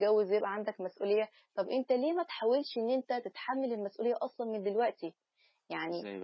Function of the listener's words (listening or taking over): listening